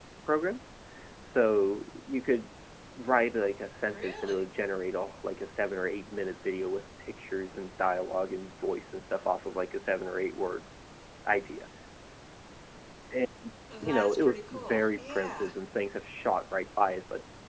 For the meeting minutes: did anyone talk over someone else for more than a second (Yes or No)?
Yes